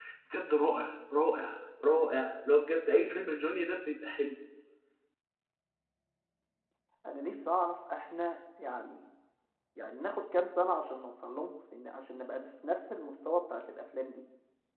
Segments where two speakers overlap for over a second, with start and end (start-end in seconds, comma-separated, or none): none